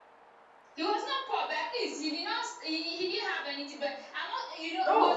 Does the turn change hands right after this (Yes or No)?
Yes